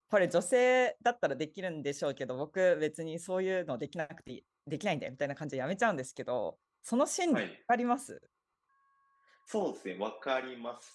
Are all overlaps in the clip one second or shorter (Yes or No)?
Yes